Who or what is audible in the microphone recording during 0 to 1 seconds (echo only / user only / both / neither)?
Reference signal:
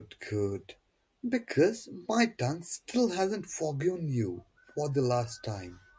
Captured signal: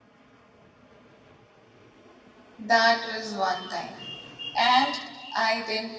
neither